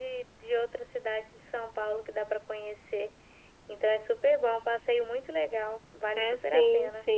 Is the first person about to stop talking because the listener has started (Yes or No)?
Yes